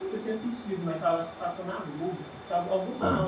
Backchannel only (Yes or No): Yes